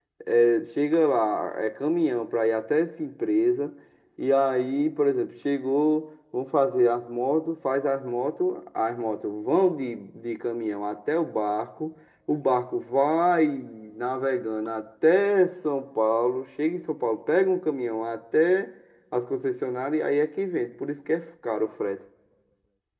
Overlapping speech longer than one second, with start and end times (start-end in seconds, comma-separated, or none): none